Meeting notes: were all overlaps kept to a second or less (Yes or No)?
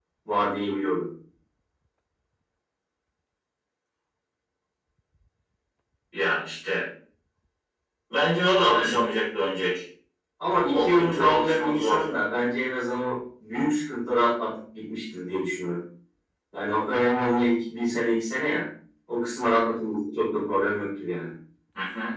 No